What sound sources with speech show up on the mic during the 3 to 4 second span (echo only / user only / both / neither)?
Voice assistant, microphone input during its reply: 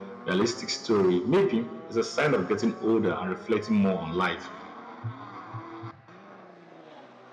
echo only